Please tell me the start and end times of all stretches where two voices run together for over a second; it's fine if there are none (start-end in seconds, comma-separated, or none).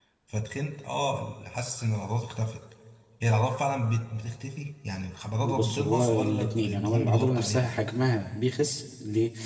5.4-7.7